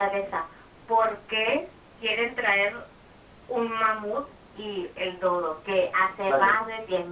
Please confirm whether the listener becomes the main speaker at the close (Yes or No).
No